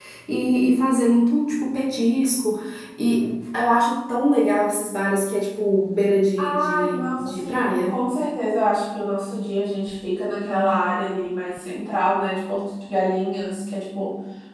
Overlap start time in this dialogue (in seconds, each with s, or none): 6.4 s